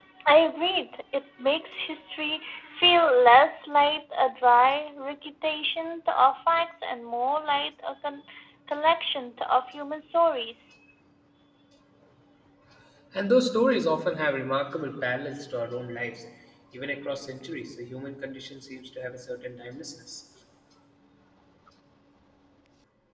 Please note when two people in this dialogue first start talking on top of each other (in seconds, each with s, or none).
none